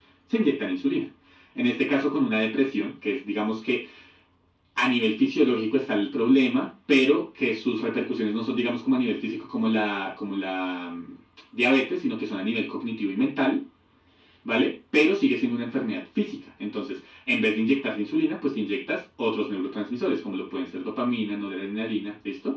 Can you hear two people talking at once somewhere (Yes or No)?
No